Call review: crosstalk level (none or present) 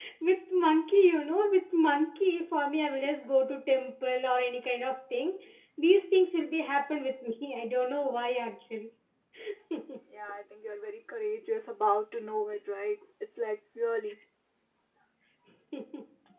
none